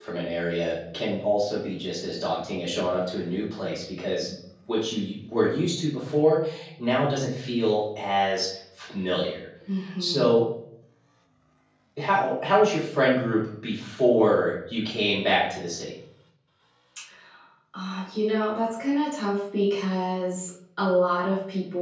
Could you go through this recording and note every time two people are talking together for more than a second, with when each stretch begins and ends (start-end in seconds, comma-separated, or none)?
none